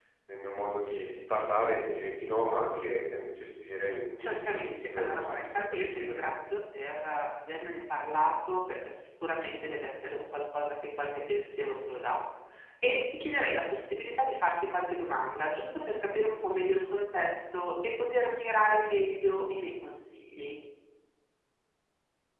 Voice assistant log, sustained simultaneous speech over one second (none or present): present